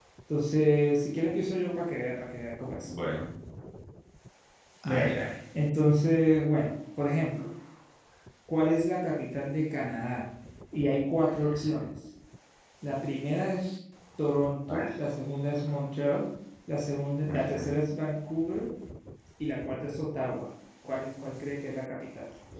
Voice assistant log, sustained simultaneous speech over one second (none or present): none